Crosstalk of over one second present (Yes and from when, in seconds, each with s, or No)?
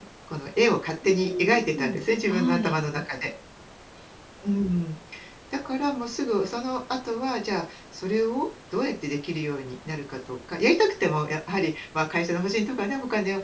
Yes, from 1.0 s